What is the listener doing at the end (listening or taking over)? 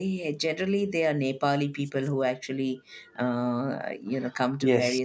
taking over